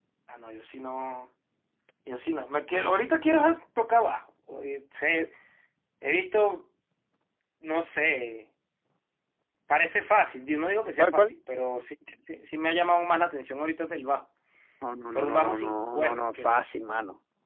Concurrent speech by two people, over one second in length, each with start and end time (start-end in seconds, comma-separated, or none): 15.1-16.6